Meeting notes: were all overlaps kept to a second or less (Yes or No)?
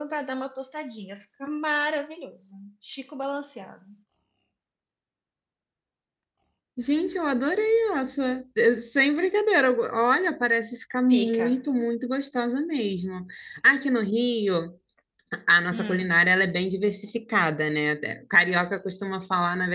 Yes